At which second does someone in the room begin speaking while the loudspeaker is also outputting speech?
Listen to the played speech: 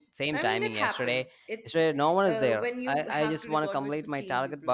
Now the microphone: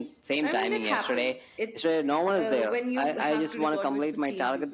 none

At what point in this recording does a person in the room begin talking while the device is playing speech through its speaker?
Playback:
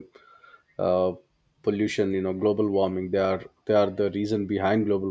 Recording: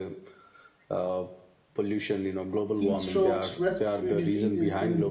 3 s

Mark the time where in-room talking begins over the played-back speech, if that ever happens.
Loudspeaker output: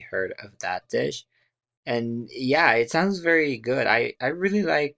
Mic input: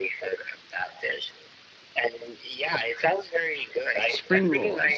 4 s

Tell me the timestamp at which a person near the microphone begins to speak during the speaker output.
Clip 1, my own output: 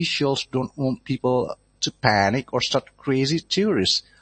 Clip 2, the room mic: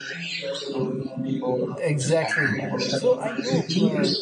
2 s

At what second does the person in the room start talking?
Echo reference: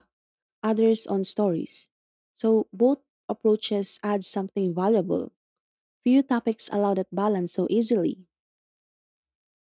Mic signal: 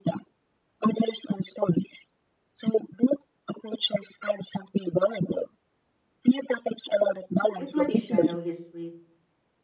8 s

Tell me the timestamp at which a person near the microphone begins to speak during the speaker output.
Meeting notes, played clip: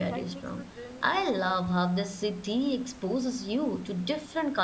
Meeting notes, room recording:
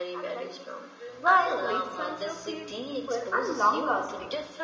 1 s

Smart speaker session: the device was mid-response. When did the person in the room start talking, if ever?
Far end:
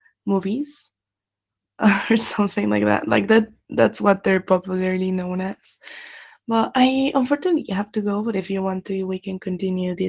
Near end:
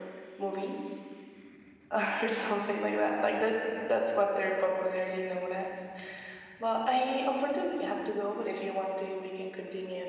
none

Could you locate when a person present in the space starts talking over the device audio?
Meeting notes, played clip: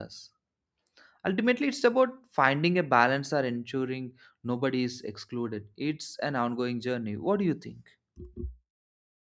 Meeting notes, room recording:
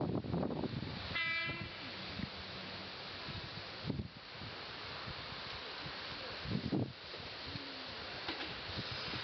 none

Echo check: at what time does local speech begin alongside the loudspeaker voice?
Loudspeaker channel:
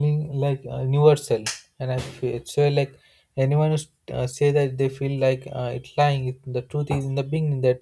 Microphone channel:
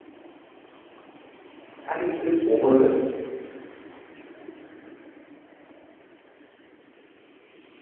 2 s

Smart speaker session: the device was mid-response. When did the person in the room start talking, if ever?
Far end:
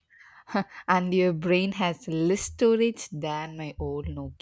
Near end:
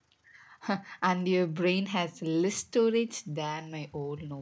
none

